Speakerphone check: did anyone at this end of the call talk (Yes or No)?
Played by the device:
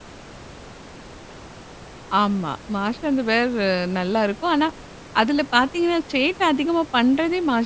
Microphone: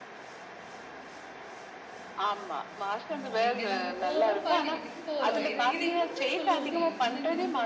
Yes